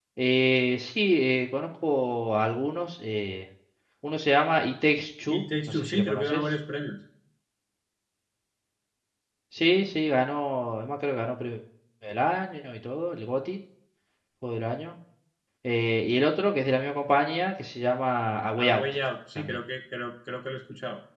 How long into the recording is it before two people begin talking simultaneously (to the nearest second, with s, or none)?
5 s